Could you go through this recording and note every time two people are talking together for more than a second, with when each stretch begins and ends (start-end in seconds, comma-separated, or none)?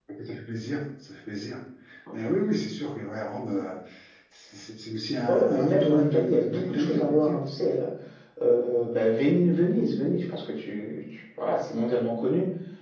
5.3-7.4